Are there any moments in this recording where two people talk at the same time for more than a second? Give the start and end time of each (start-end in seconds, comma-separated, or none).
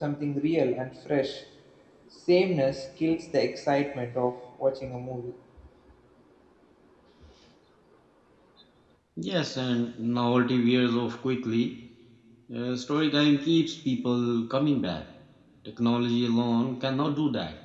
none